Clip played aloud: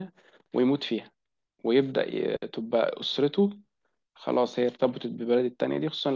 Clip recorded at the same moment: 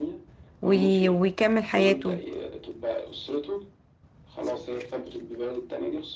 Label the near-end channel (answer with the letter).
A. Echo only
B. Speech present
B